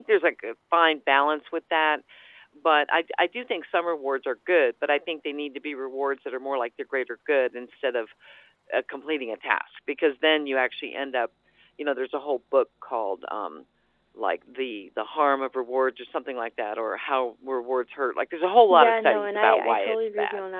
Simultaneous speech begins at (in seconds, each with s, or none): 18.7 s